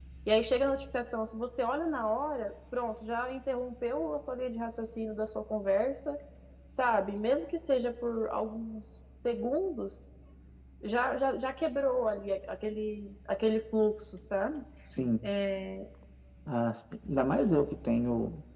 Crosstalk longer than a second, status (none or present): none